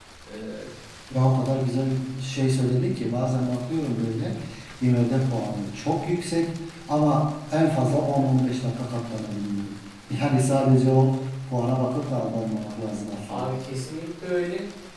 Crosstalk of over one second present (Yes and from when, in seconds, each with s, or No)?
No